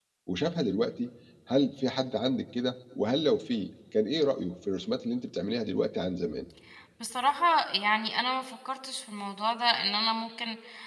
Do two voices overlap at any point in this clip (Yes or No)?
No